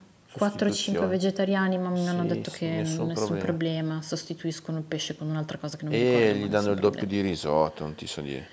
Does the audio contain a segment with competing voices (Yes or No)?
Yes